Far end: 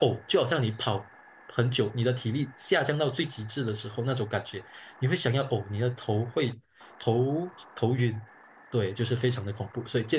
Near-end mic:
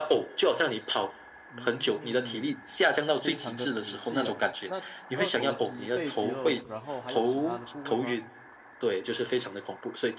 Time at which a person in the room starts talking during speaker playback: 1 s

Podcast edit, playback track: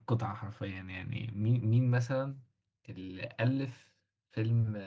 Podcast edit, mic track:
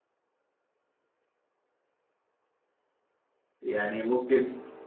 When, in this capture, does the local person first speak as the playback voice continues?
4 s

